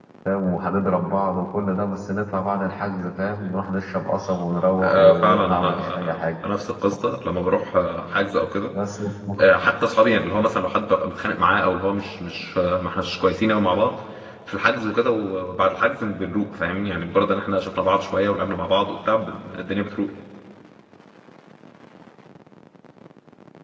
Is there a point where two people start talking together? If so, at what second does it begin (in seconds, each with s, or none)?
4.8 s